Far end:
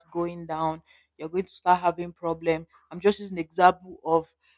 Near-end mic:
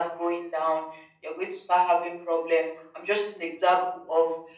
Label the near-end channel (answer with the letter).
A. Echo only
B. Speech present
A